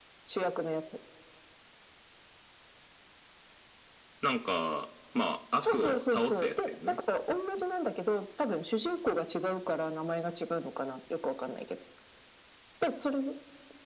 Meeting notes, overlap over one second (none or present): present